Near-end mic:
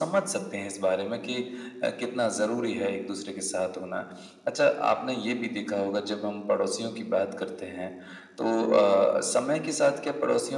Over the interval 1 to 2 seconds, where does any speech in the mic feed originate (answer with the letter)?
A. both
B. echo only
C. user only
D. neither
B